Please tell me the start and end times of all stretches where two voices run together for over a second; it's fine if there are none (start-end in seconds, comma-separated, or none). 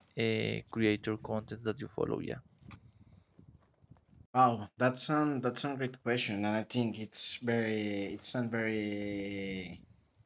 none